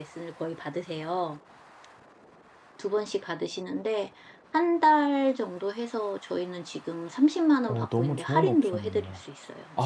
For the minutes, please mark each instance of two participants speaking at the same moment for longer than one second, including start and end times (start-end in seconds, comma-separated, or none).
7.7-9.1